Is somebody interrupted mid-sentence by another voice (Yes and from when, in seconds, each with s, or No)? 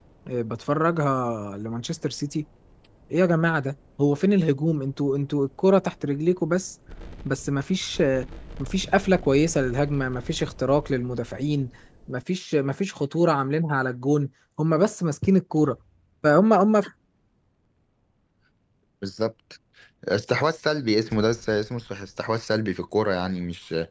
No